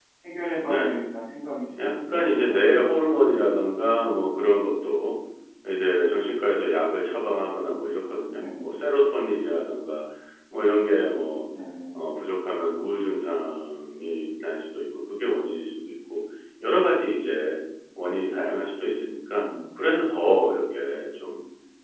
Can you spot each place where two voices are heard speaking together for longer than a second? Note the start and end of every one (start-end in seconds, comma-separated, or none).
1.8-3.5